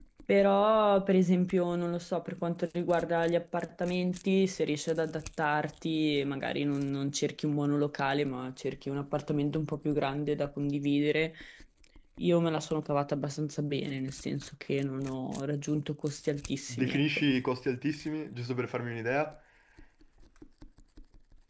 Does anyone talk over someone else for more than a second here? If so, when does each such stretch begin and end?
none

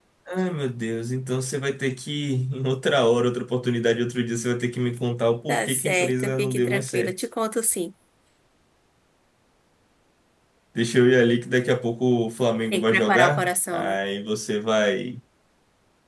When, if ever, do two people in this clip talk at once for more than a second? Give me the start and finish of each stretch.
5.5-7.1, 12.7-14.0

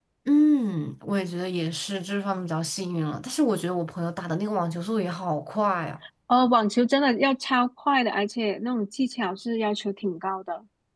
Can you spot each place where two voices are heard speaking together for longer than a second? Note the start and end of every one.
none

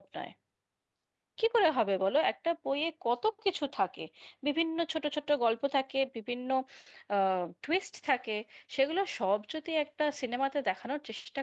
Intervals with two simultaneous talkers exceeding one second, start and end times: none

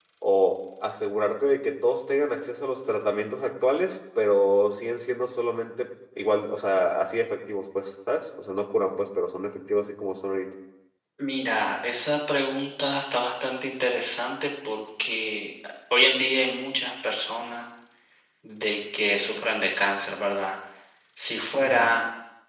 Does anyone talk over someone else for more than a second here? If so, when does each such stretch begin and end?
none

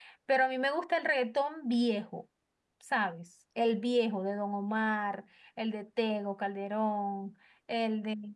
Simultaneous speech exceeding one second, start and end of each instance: none

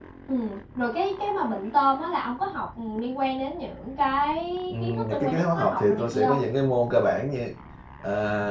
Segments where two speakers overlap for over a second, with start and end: 4.8-6.4

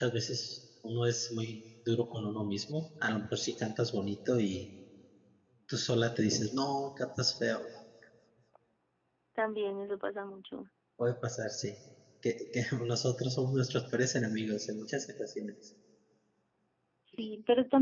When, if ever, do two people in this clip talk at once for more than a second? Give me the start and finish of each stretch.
none

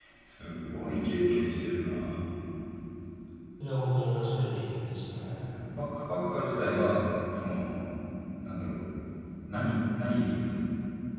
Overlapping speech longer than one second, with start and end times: none

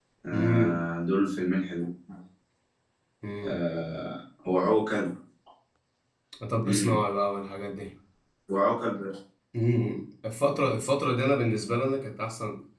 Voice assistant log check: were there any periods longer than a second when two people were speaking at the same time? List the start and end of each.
none

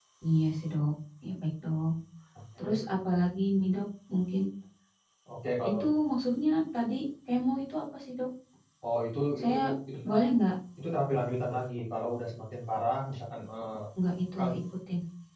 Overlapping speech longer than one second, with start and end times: none

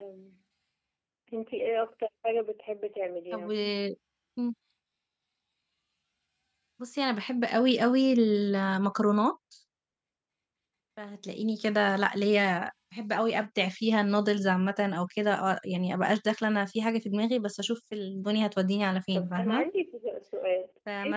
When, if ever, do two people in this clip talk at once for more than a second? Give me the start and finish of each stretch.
none

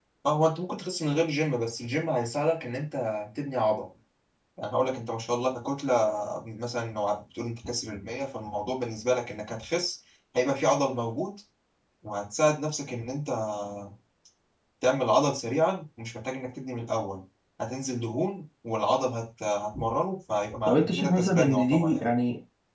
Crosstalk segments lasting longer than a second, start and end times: 20.7-22.1

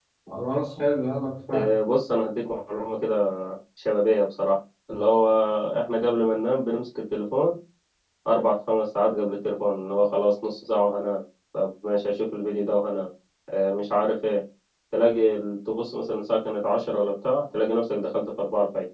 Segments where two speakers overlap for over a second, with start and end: none

